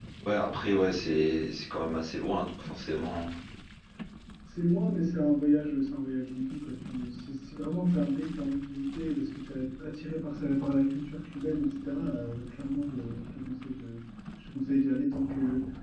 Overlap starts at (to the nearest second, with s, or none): none